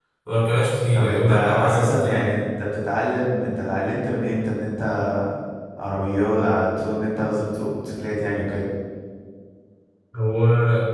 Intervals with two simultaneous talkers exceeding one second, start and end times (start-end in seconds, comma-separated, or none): 0.9-2.3